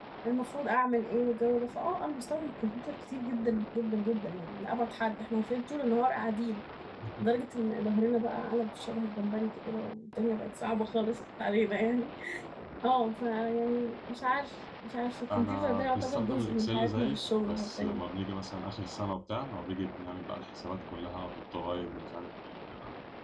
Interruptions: present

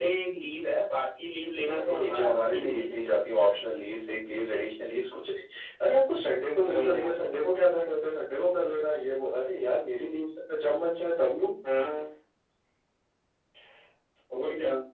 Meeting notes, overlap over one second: present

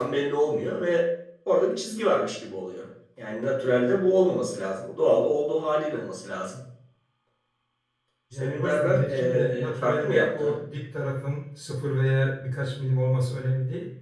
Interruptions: present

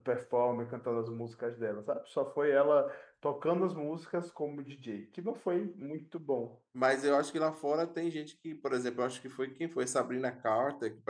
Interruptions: none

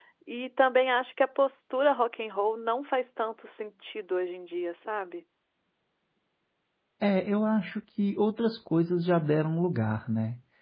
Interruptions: none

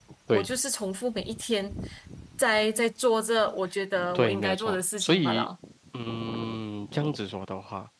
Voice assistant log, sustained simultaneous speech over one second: present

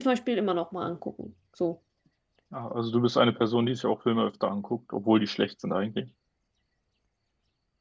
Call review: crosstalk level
none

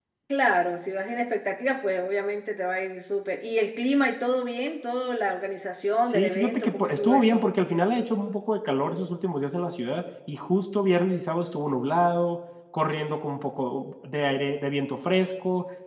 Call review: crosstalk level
present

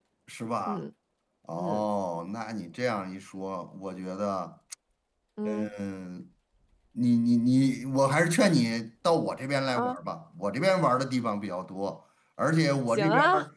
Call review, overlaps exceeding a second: none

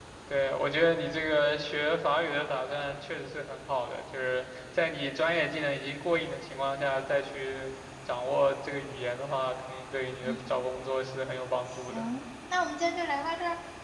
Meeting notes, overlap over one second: none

